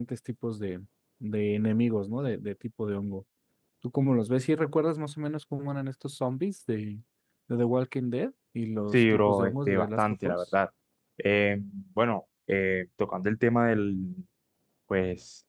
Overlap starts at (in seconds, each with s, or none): 8.9 s